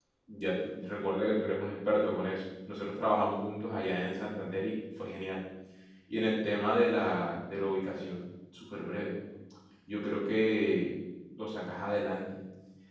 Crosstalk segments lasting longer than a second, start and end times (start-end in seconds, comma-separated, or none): none